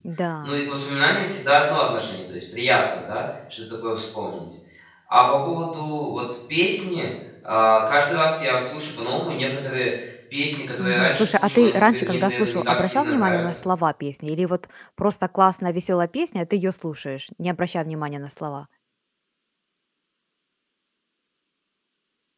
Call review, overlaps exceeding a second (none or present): present